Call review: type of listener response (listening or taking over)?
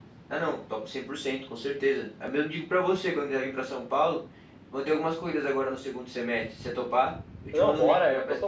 taking over